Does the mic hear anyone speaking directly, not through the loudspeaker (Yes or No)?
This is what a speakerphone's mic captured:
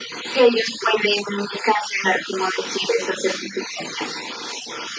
No